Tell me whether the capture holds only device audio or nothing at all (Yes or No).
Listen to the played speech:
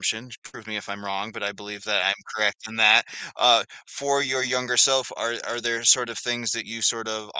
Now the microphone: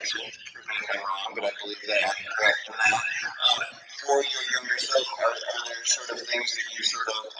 Yes